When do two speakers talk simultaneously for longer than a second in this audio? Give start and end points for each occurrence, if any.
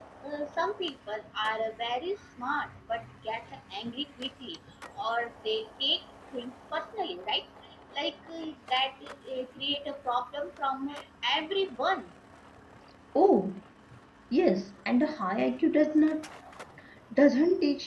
none

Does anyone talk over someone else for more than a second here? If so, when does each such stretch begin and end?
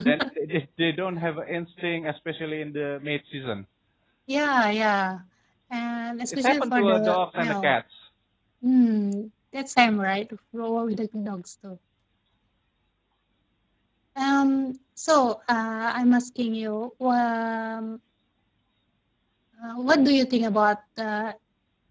6.3-7.7

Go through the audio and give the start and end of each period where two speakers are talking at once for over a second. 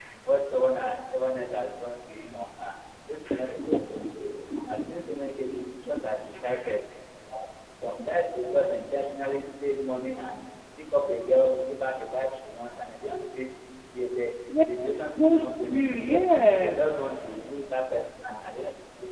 15.2-16.8

